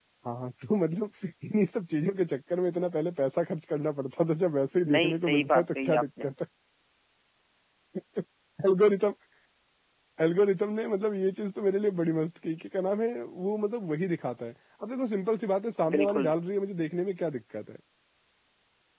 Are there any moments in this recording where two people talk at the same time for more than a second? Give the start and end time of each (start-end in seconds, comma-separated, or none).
4.9-6.3